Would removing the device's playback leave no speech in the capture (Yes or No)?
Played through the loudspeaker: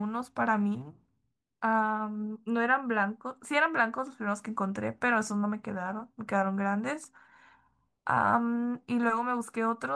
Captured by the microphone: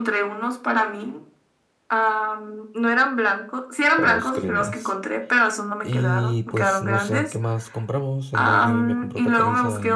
No